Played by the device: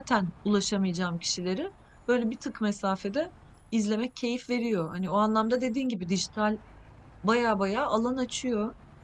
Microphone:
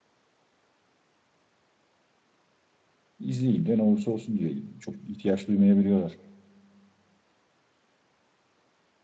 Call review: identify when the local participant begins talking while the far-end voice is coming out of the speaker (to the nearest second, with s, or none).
3 s